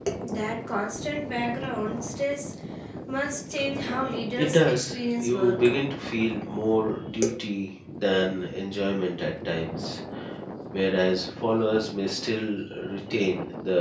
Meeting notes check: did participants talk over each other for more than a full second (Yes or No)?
Yes